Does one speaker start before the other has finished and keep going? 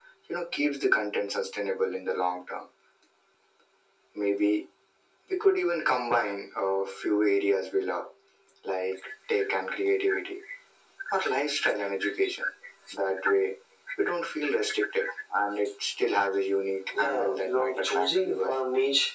Yes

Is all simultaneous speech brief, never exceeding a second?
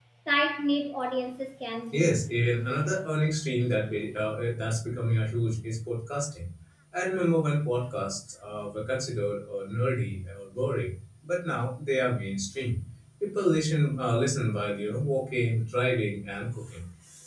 Yes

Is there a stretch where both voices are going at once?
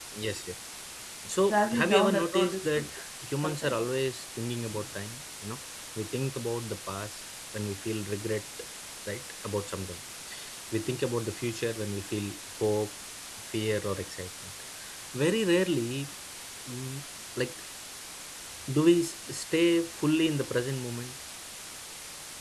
Yes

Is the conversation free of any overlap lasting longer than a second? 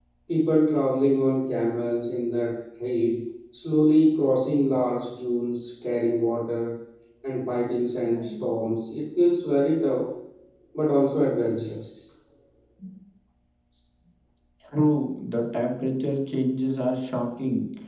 Yes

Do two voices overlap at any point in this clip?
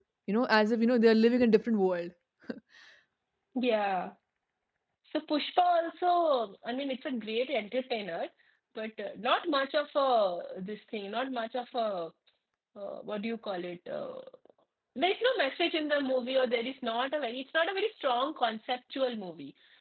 No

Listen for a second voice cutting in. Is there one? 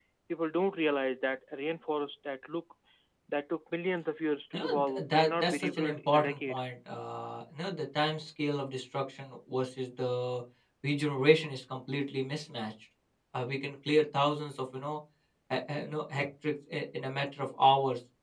Yes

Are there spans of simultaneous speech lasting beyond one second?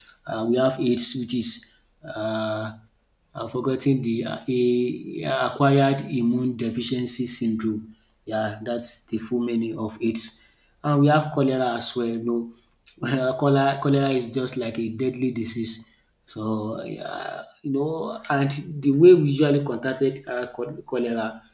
No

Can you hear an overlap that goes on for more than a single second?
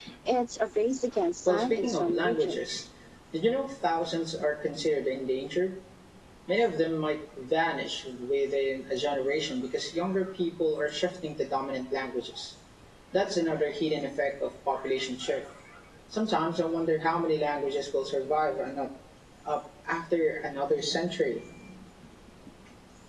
Yes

